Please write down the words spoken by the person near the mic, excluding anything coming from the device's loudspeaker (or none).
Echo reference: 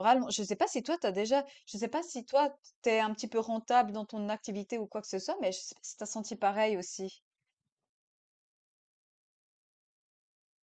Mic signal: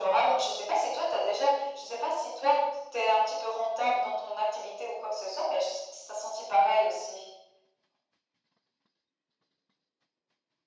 none